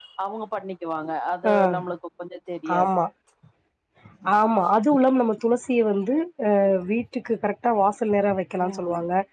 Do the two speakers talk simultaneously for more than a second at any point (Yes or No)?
No